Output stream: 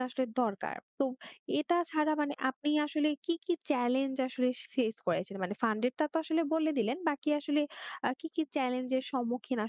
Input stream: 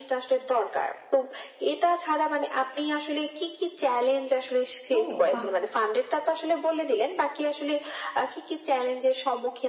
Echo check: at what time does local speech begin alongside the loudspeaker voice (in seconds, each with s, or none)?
4.9 s